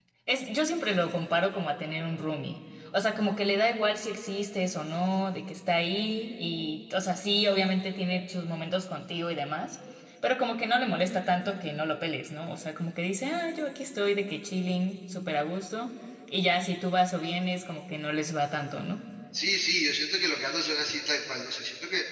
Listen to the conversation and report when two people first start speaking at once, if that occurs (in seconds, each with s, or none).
none